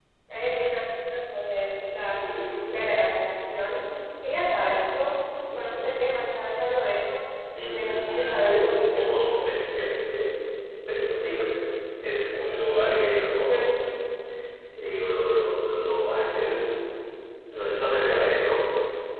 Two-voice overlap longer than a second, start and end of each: 7.6-9.1

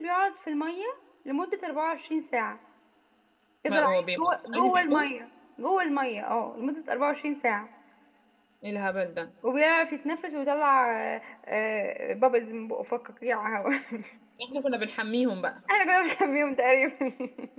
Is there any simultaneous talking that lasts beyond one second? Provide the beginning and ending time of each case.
3.7-5.1

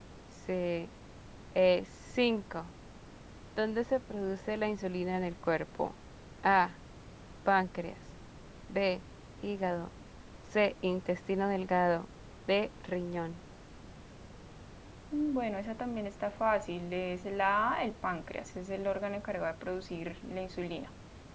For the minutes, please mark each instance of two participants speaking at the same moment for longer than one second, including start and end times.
none

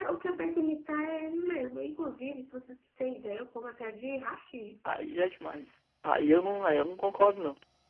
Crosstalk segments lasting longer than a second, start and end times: none

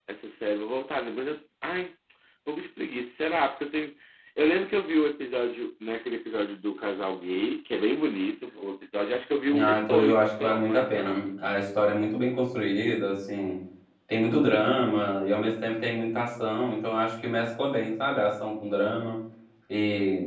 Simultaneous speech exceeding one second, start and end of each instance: 9.6-11.2

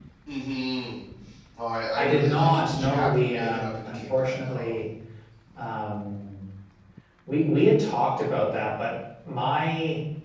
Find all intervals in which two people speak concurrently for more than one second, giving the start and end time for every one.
1.9-4.8

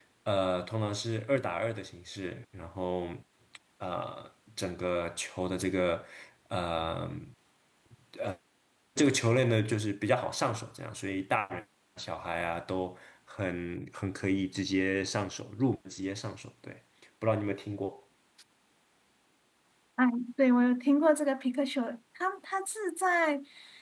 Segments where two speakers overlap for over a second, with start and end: none

